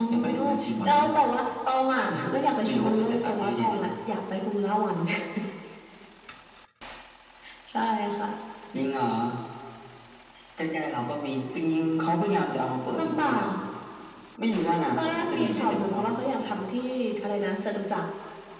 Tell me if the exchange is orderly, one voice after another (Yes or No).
No